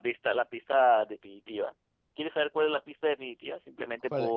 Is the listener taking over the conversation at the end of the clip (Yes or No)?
Yes